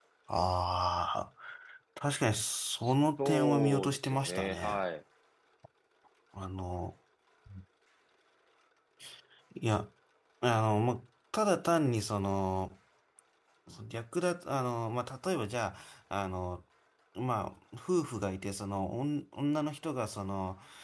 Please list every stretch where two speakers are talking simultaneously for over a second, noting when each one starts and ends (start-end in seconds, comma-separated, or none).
3.2-4.8